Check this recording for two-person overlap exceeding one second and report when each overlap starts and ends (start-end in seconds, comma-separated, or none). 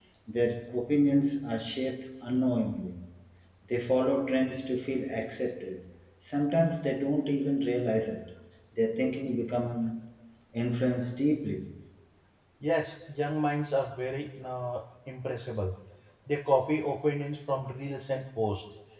none